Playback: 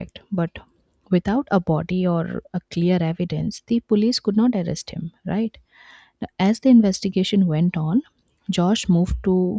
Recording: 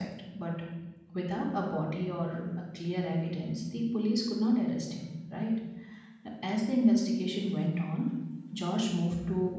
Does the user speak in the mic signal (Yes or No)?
No